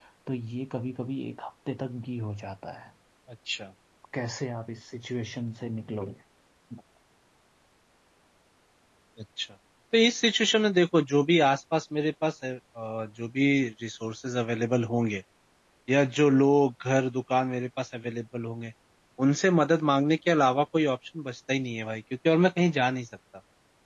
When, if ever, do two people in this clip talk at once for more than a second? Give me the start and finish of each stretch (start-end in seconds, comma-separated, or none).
none